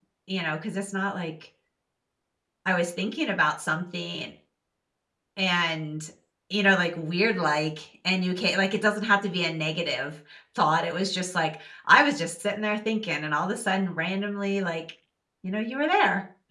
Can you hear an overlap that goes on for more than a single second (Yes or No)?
No